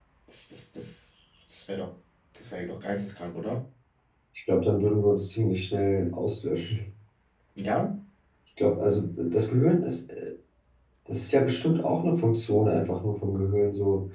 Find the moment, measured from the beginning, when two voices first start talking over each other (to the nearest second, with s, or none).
none